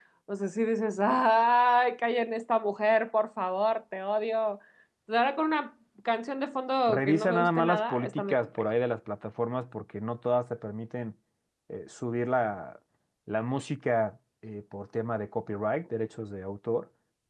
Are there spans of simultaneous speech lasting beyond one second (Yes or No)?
Yes